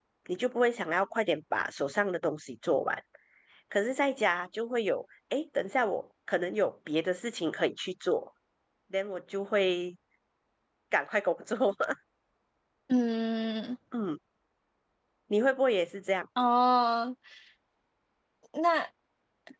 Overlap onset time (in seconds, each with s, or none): none